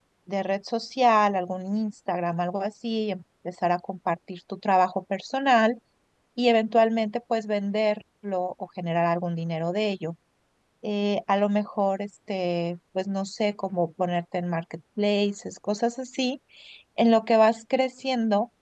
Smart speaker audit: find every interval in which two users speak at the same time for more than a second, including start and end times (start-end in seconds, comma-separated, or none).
none